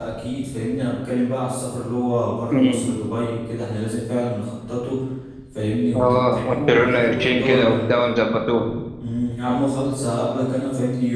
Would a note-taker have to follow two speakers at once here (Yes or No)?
Yes